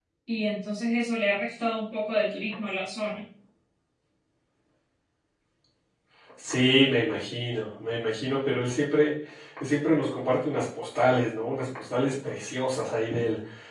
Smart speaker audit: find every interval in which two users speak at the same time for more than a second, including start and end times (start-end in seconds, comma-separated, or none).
none